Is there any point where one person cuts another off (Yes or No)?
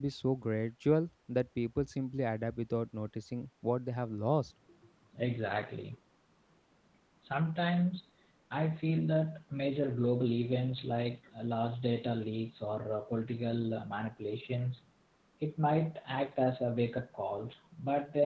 No